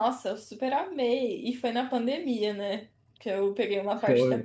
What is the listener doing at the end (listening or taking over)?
taking over